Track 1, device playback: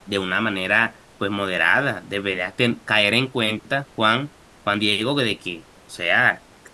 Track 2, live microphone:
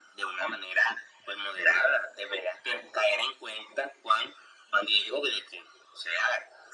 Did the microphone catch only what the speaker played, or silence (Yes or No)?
Yes